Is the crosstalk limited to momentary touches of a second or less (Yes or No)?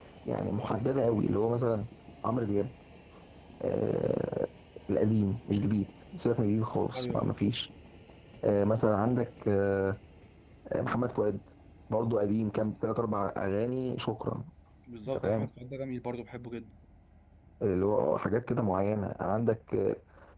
Yes